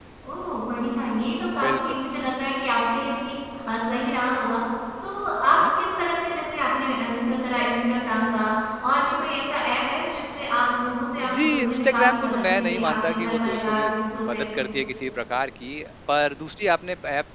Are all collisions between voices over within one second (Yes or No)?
No